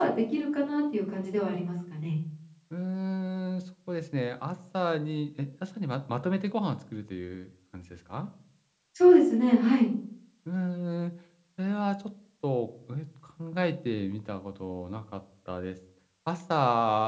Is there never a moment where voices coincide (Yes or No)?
Yes